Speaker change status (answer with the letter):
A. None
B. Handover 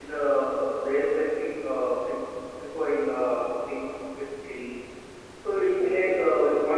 A